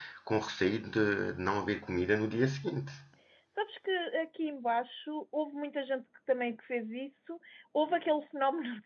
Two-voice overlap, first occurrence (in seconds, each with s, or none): none